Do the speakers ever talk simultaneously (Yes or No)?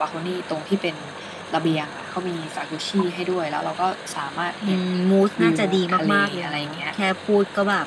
Yes